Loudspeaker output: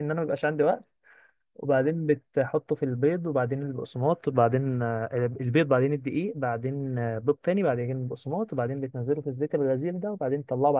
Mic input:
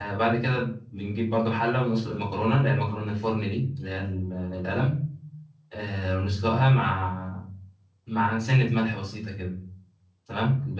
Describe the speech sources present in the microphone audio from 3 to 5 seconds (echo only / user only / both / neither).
user only